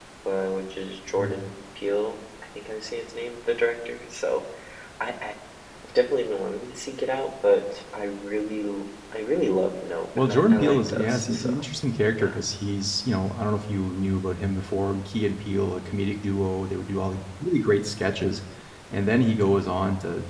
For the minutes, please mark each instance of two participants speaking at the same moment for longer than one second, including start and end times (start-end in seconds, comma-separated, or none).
10.2-11.6